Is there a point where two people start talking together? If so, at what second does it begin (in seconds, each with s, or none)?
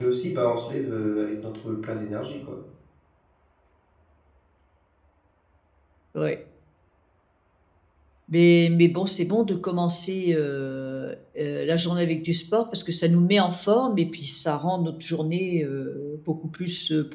none